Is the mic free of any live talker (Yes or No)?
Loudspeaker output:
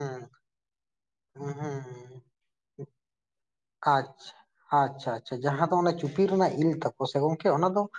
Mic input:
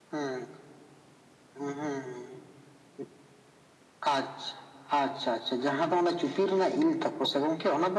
Yes